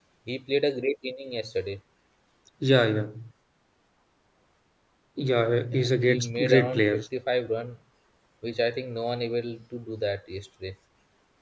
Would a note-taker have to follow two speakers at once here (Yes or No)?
Yes